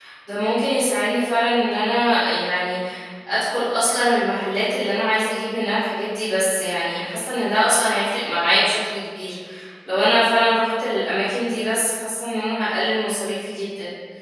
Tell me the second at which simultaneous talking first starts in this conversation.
none

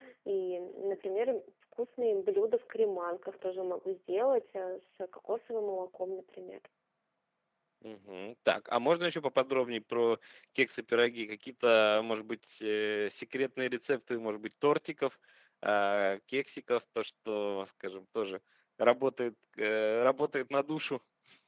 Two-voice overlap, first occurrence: none

